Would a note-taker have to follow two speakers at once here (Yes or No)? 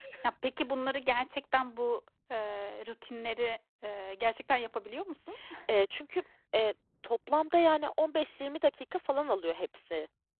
No